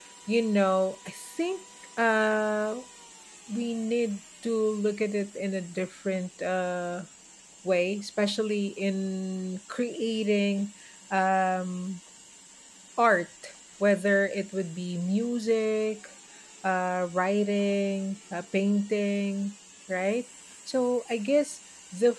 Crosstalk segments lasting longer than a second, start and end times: none

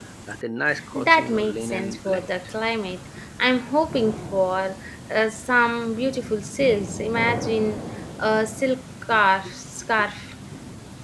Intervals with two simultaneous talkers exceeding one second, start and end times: 0.9-2.3

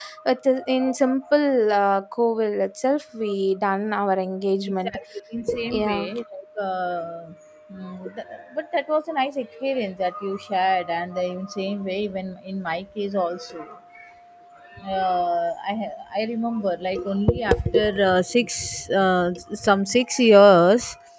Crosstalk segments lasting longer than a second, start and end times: none

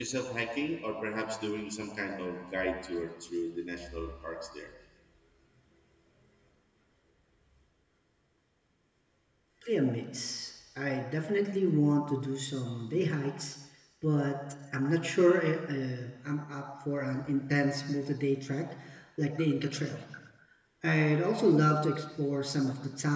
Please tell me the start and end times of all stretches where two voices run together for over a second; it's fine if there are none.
none

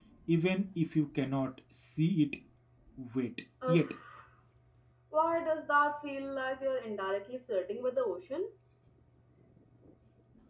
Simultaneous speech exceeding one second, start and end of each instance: none

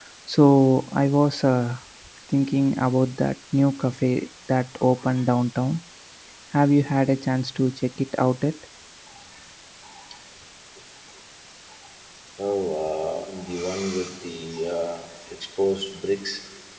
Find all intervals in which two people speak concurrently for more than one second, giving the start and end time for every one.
none

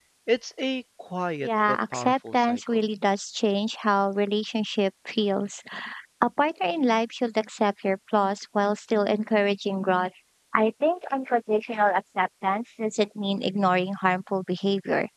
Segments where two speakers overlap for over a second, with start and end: 1.4-2.8

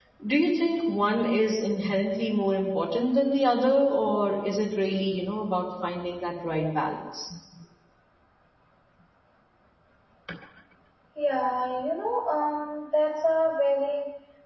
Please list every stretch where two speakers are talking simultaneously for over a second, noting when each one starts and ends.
none

